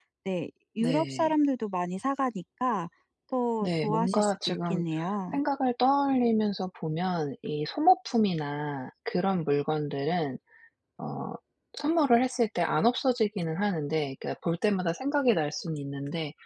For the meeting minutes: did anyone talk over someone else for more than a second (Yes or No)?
Yes